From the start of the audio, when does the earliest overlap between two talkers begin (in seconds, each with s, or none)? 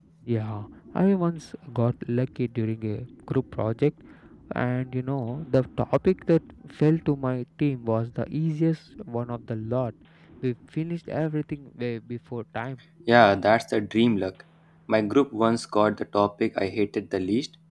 none